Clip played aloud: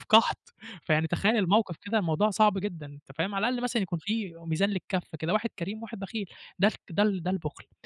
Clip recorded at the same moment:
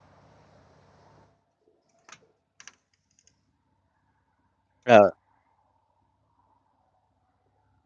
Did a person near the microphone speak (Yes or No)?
Yes